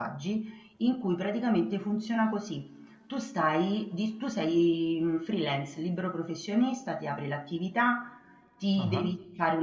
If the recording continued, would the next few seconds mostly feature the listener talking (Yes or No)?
No